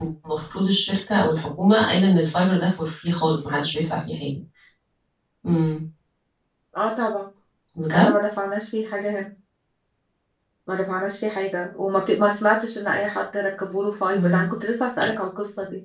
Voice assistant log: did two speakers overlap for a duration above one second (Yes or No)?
No